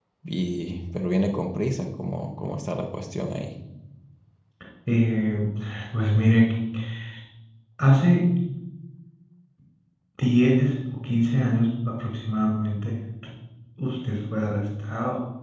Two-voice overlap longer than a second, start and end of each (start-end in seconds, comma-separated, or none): none